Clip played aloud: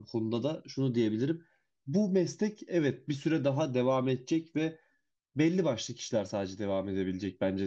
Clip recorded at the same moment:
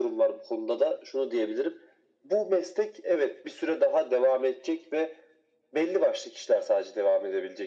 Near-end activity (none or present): none